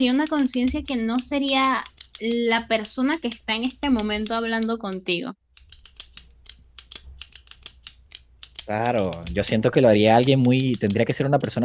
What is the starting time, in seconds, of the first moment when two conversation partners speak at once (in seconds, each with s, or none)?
none